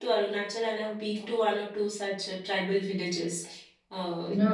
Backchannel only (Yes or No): Yes